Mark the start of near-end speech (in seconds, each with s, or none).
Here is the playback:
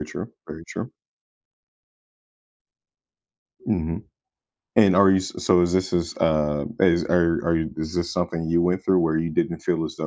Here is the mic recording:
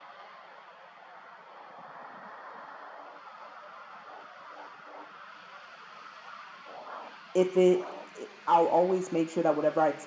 7.3 s